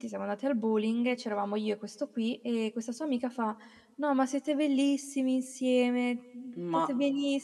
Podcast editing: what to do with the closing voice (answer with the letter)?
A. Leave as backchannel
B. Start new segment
A